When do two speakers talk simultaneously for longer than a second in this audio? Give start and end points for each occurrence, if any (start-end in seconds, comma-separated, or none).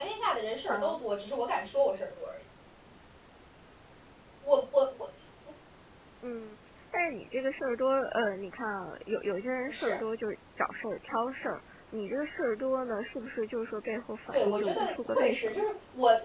14.3-15.6